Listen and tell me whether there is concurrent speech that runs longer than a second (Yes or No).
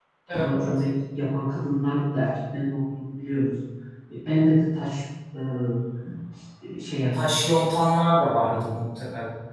No